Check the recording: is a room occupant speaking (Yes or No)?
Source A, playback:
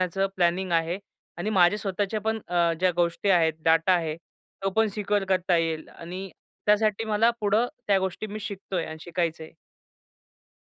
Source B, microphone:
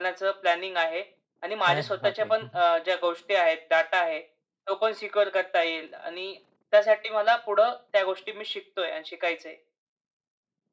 Yes